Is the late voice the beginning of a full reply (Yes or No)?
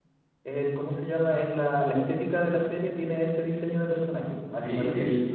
Yes